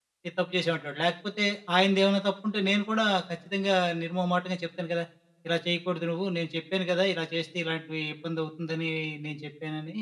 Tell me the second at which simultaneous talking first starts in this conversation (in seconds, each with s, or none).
none